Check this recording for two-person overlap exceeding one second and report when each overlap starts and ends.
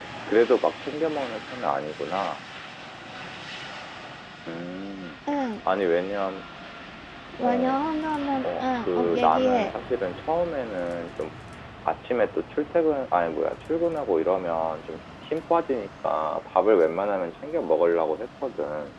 8.4-9.7

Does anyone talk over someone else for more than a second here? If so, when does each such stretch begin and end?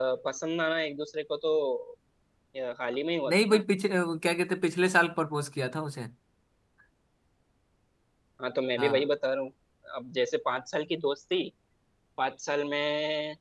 none

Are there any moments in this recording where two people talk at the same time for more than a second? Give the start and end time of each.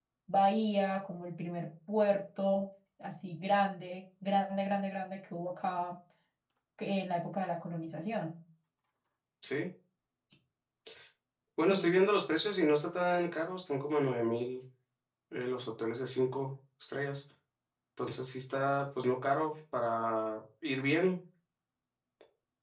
none

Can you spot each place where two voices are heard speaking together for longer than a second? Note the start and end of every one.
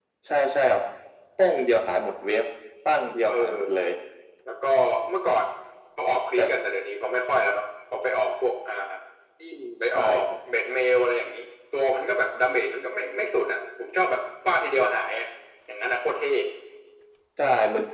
none

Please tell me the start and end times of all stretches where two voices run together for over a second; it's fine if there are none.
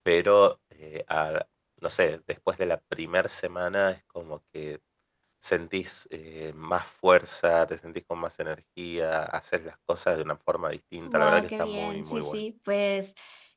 11.1-12.3

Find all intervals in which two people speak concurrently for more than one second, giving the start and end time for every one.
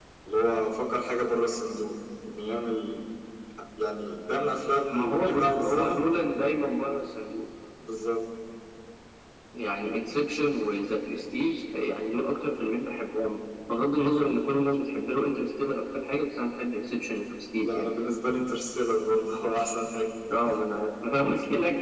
4.9-6.1

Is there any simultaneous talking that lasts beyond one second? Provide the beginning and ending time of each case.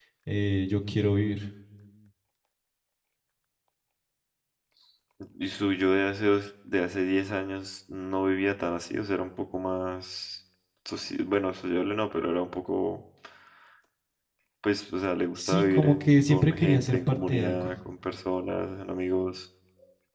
15.3-17.7

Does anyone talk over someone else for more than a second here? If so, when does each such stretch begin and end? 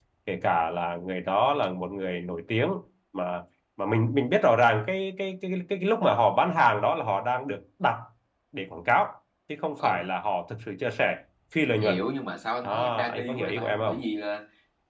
12.6-13.9

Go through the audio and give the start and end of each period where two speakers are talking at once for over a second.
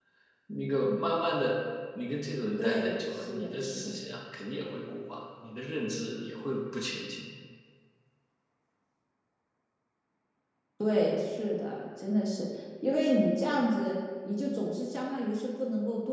2.6-3.9

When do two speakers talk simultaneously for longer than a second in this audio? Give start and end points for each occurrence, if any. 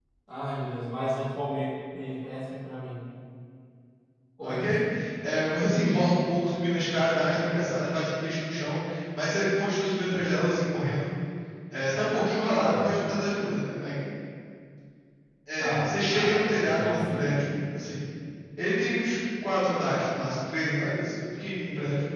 15.6-17.4

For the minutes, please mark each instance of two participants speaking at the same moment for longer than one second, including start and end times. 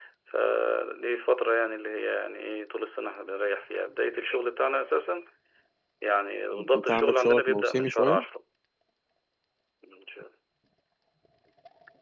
6.5-8.2

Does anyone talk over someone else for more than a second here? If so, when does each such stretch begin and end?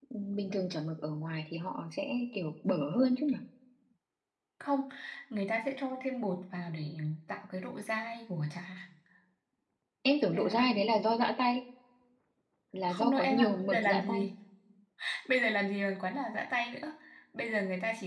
12.9-14.2

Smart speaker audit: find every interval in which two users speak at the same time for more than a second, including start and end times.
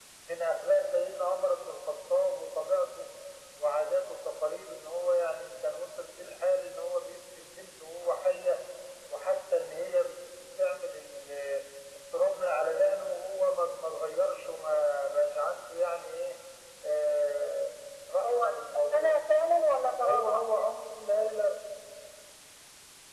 none

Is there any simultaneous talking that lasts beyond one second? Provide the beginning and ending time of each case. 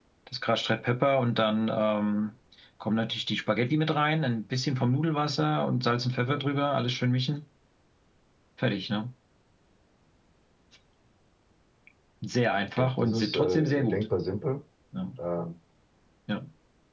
12.8-14.0

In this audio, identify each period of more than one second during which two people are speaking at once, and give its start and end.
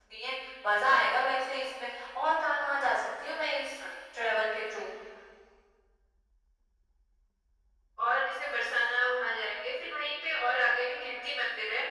none

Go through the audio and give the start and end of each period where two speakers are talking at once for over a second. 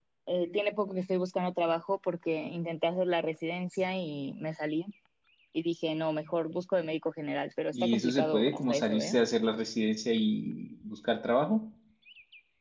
7.7-9.2

